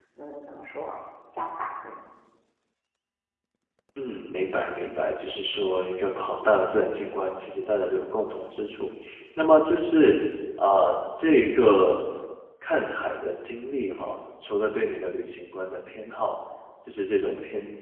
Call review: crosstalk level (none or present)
none